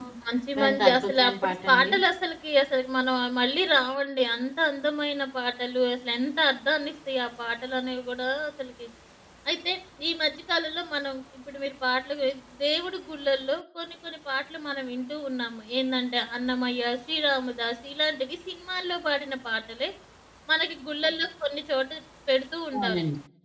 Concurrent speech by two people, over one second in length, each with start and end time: 0.6-1.9

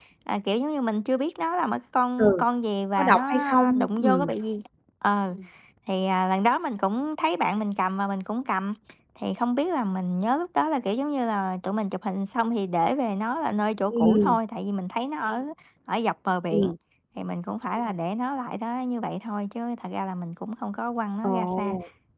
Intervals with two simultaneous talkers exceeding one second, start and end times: 3.0-4.3

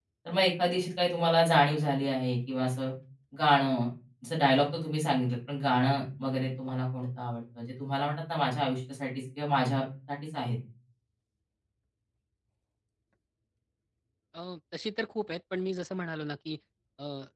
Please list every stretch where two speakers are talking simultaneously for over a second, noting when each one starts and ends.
none

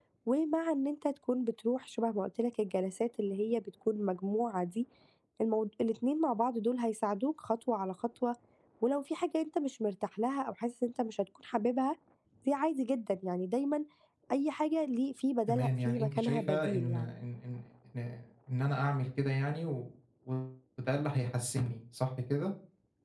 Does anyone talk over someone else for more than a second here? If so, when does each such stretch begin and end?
15.5-17.1

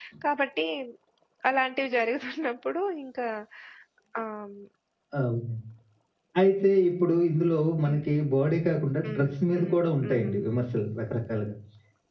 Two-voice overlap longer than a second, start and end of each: 9.0-10.3

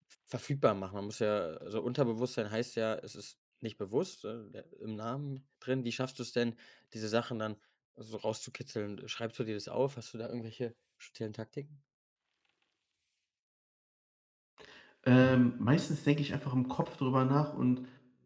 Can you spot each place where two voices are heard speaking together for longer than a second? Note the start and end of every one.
none

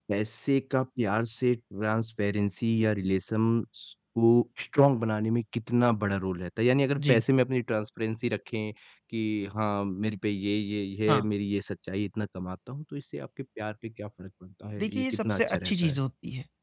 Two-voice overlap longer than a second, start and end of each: 14.8-16.0

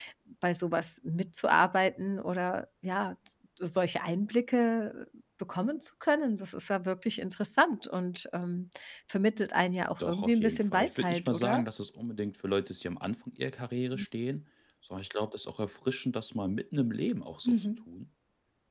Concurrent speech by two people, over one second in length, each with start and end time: 10.0-11.6

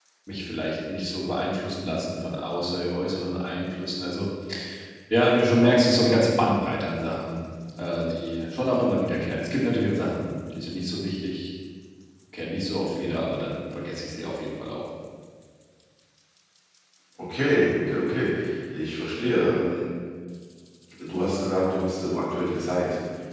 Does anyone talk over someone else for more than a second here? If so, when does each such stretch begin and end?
none

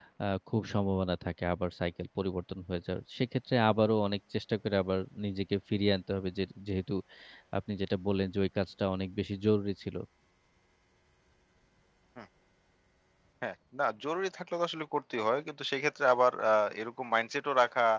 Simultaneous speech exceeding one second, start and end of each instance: none

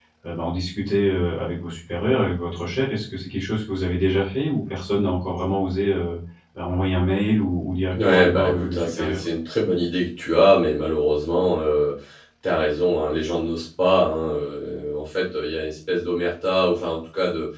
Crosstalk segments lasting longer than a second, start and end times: 8.0-9.2

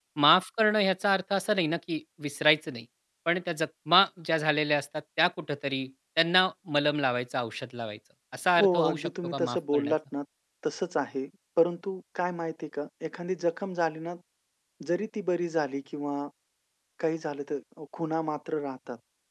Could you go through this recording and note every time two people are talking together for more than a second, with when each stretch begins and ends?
8.6-9.9

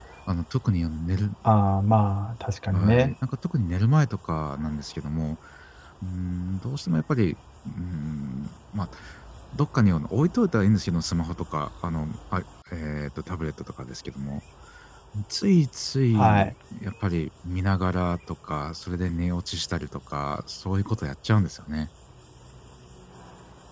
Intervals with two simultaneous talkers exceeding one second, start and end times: none

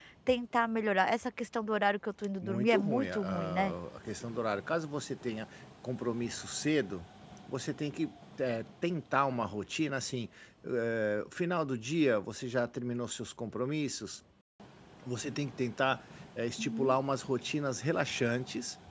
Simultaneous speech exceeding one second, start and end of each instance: 2.4-3.8

